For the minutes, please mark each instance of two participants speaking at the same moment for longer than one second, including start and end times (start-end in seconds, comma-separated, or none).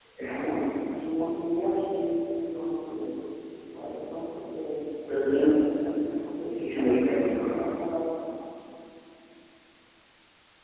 6.5-7.7